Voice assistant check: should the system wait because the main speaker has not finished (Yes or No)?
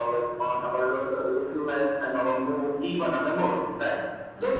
Yes